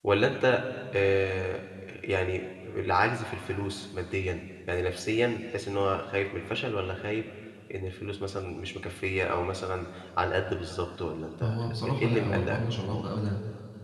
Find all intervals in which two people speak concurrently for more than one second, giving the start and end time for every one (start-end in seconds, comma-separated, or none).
11.4-13.2